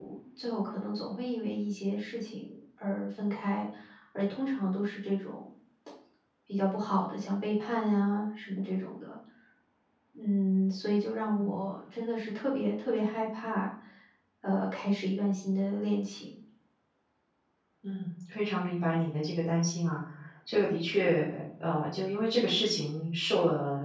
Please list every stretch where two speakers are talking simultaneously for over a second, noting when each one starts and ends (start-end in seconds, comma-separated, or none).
none